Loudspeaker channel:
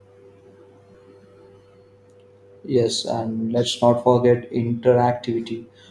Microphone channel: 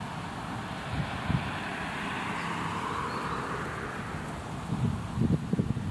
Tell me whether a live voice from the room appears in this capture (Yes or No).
No